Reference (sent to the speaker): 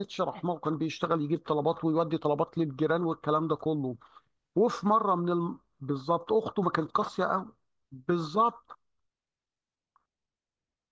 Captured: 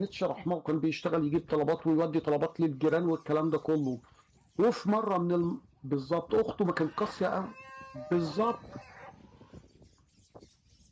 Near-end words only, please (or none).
none